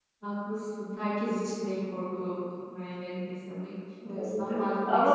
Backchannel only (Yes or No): No